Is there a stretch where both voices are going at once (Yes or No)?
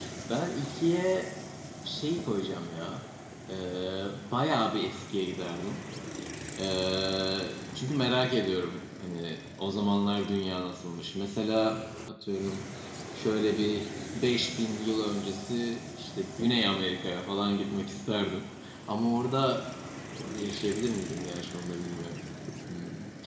No